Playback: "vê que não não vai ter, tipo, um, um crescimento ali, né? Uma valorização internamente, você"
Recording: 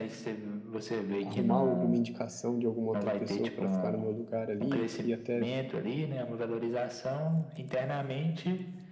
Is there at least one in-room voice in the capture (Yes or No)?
Yes